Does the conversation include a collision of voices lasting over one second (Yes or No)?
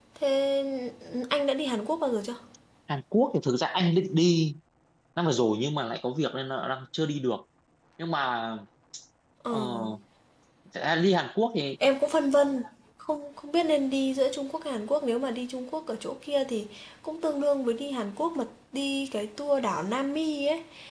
No